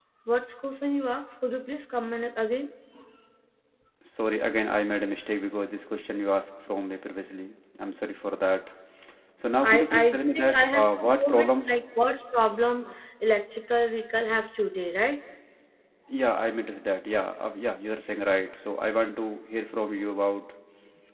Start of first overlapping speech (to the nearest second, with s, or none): 10 s